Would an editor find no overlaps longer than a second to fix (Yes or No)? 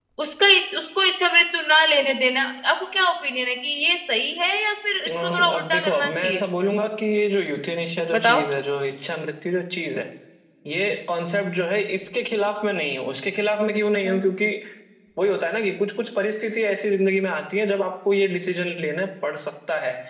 No